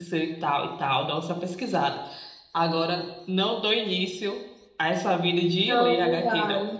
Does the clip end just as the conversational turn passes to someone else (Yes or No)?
Yes